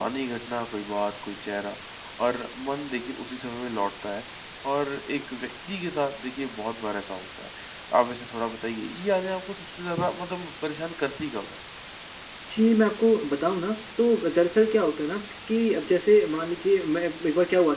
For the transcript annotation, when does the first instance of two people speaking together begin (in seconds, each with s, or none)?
none